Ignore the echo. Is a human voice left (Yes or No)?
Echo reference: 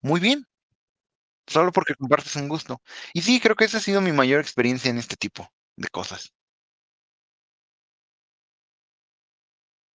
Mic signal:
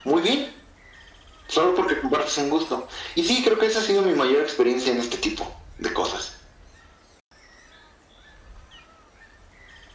No